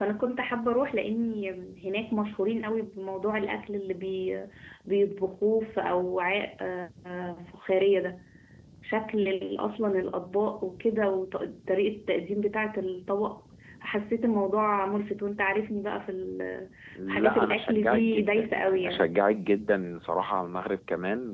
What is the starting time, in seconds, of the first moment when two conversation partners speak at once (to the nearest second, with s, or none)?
17 s